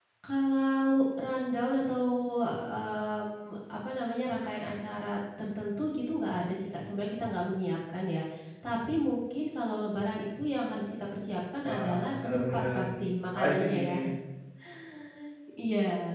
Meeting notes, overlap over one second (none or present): present